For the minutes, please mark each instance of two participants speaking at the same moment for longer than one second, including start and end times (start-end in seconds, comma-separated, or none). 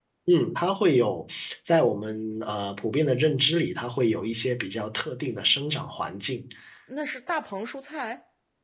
none